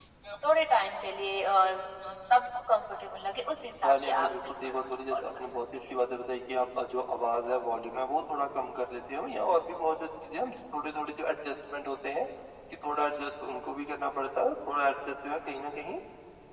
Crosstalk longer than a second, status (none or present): present